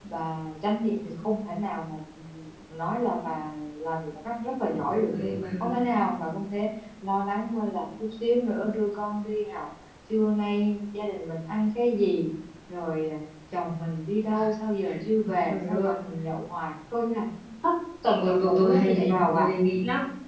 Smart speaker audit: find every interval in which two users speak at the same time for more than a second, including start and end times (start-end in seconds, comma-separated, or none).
18.2-19.5